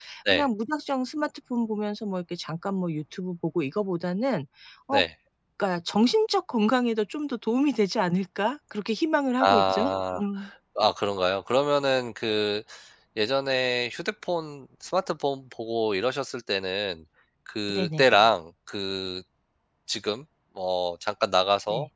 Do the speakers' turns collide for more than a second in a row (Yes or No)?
No